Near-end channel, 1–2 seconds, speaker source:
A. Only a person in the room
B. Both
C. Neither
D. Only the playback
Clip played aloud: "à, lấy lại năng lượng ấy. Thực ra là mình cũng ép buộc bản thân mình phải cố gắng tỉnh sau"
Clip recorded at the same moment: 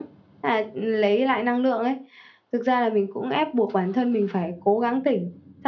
D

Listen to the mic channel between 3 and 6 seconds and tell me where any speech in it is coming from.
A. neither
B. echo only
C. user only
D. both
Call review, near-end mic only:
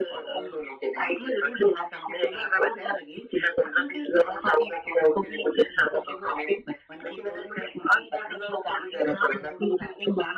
B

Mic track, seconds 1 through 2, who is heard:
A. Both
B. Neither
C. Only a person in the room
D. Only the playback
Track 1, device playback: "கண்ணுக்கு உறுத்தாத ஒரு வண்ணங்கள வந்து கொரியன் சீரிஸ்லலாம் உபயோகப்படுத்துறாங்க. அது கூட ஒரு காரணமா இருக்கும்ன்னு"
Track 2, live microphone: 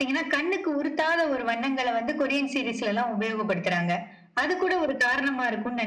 D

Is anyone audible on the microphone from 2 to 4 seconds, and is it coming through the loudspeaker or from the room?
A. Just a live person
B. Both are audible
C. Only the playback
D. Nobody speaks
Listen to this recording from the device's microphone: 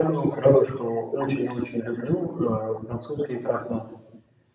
C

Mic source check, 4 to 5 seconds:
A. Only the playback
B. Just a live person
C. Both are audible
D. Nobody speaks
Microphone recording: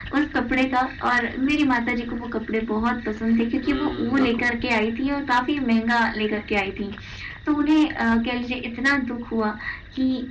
C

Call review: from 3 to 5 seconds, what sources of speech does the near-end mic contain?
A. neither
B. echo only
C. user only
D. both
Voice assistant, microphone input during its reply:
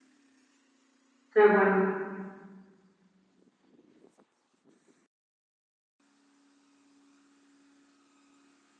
A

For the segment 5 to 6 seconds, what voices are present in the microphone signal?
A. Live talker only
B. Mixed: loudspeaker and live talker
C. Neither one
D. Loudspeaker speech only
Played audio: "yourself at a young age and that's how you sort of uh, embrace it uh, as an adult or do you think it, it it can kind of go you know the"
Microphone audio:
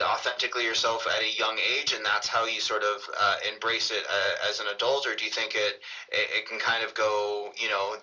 D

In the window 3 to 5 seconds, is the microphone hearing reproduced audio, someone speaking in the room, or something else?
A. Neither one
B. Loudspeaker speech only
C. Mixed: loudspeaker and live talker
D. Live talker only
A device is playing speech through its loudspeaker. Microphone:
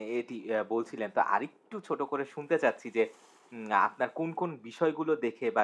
D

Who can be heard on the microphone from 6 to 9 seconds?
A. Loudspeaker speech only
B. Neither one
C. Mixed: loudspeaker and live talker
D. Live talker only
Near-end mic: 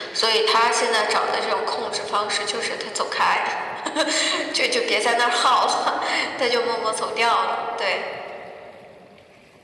A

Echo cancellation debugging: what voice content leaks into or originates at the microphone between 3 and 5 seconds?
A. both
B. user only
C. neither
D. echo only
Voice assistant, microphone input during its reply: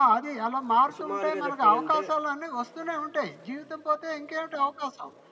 D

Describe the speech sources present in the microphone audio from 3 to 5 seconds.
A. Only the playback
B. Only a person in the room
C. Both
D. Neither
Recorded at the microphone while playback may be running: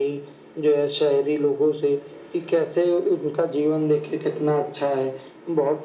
A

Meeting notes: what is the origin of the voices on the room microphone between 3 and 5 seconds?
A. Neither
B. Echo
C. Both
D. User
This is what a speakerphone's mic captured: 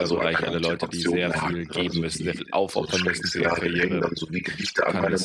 C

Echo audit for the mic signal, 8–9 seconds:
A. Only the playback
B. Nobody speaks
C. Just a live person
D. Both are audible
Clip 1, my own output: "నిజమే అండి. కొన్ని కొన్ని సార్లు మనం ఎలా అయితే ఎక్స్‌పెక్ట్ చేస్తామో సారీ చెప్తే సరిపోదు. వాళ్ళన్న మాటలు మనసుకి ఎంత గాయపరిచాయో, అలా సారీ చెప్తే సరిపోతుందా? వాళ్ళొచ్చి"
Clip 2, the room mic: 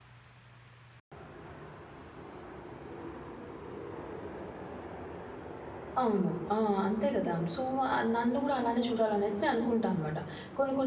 C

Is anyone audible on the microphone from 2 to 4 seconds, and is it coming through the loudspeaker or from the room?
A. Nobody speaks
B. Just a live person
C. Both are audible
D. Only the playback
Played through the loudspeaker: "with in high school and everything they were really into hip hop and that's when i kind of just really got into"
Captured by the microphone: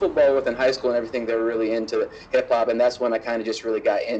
D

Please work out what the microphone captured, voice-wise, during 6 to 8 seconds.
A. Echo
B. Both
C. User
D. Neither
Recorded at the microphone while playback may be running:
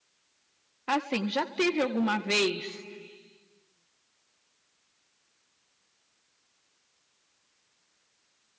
D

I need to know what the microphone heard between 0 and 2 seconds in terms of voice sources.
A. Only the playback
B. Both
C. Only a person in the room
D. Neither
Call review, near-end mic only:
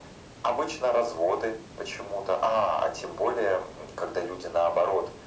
A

